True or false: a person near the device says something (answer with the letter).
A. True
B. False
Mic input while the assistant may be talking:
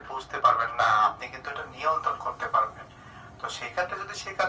B